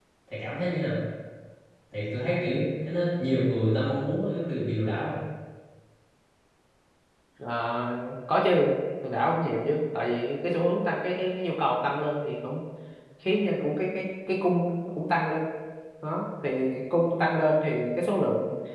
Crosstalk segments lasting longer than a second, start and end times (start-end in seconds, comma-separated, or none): none